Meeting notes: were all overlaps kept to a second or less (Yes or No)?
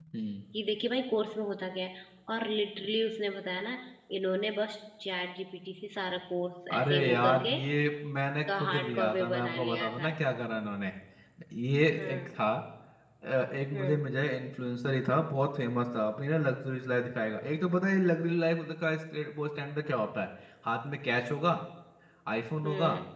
No